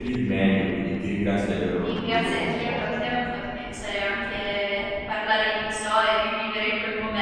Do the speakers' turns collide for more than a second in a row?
Yes, from 1.8 s

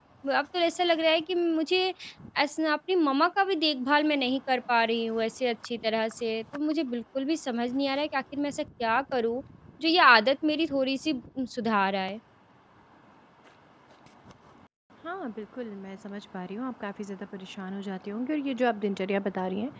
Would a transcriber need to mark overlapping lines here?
No

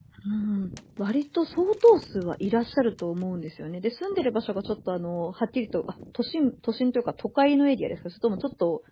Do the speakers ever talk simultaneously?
No

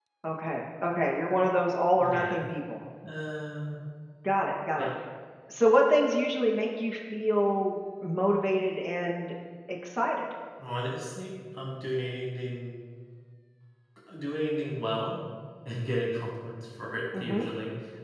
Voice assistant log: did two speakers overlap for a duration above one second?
No

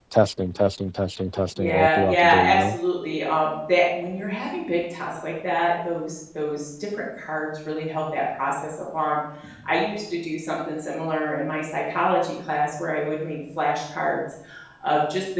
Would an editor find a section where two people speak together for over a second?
Yes, from 1.6 s

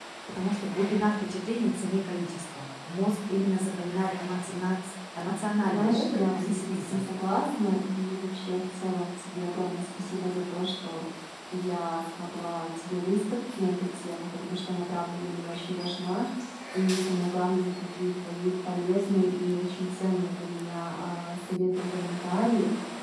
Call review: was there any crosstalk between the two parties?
Yes, from 5.6 s

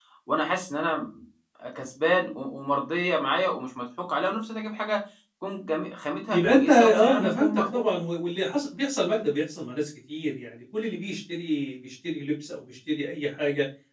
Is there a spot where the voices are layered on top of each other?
Yes, from 6.3 s

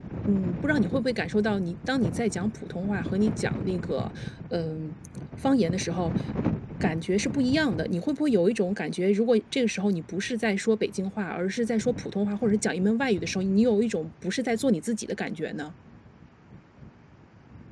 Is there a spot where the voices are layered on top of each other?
No

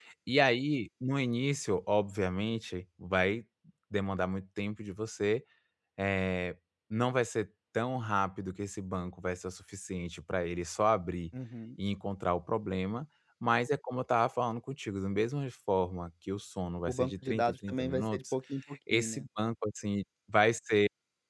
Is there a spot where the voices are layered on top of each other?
Yes, from 16.9 s

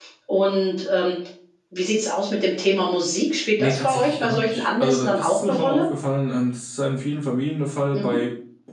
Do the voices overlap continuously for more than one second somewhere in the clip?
Yes, from 3.6 s

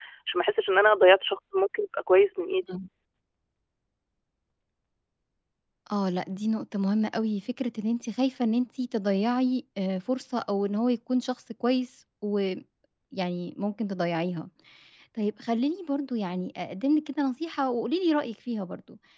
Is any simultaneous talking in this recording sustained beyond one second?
No

